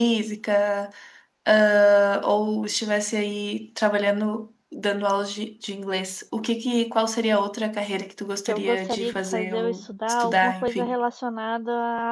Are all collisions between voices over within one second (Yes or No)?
No